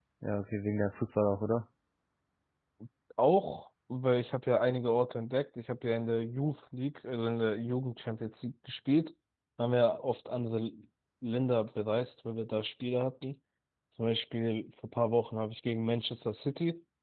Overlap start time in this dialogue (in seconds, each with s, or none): none